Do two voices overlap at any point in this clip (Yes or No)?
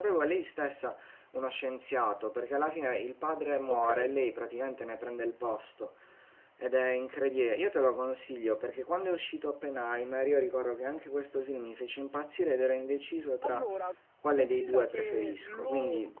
Yes